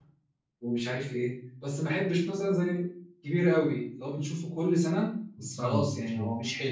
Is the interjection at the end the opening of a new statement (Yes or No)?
No